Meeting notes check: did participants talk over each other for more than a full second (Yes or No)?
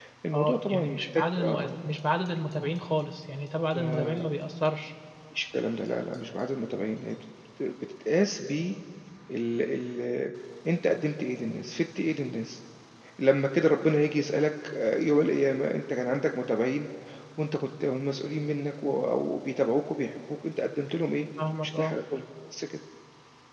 Yes